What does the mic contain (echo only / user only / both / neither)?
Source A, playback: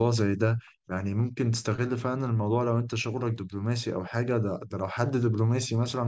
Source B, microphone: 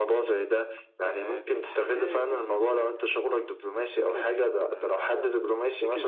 both